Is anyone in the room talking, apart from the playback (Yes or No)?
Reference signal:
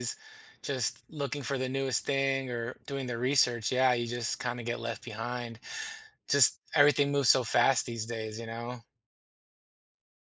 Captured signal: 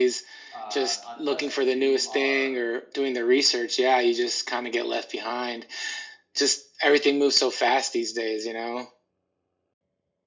Yes